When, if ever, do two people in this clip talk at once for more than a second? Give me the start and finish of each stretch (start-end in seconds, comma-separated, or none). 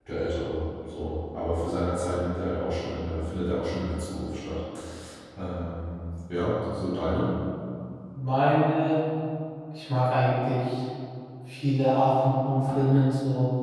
none